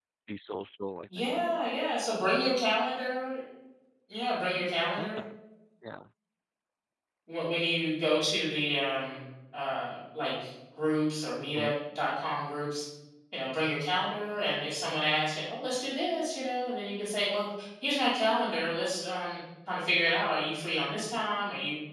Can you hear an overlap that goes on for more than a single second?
No

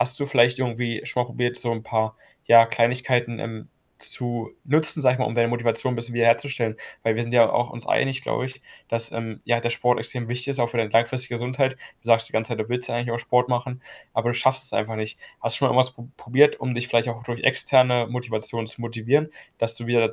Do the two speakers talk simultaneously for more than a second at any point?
No

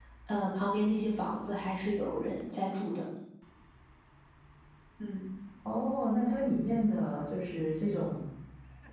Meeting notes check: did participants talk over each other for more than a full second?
No

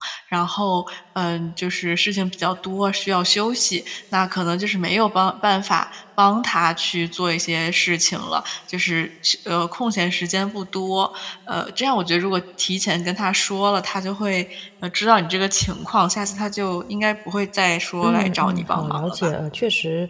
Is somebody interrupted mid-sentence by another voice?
Yes, from 18.0 s

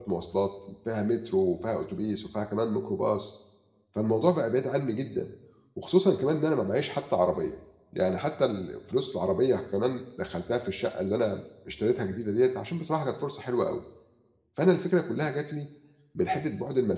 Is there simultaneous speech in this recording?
No

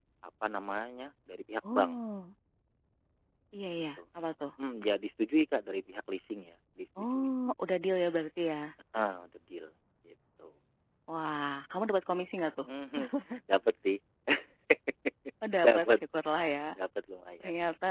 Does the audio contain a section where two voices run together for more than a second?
No

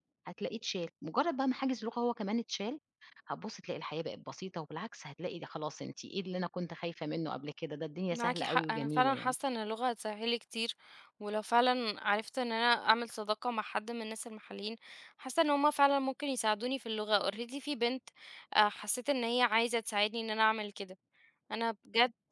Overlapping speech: Yes, from 8.1 s

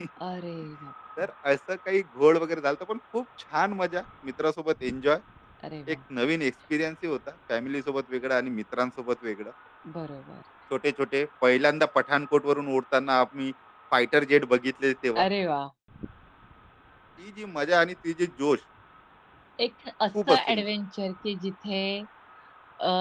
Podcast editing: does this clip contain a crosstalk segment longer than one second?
No

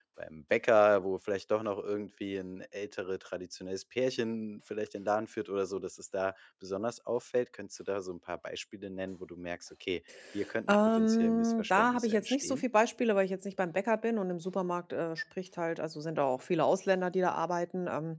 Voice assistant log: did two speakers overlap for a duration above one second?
Yes, from 10.7 s

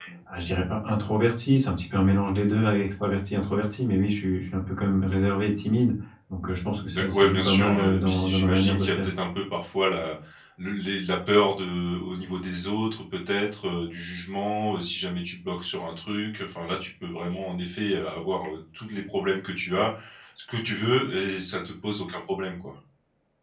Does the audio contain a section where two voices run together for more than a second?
Yes, from 6.9 s

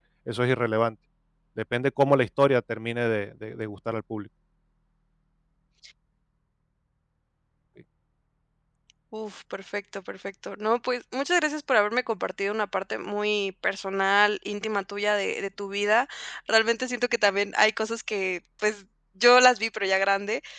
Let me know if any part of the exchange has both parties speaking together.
No

